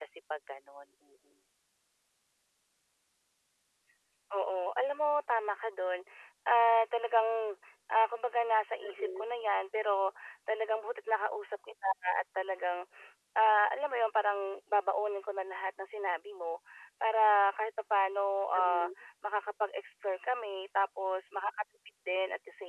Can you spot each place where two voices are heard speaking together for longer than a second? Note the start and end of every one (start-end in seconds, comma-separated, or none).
none